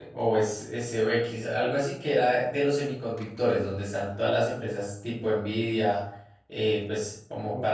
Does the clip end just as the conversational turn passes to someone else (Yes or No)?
No